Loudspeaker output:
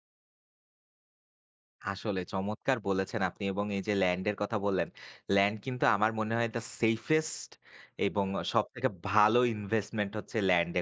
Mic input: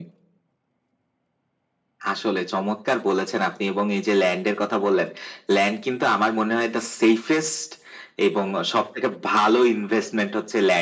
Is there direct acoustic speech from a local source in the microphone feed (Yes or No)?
No